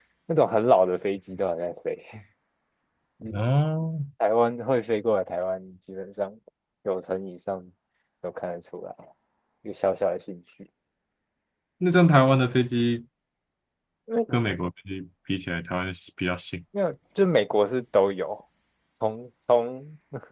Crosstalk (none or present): none